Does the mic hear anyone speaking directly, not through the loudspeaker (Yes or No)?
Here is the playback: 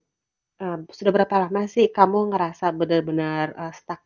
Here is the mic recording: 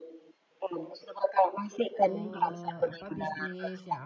Yes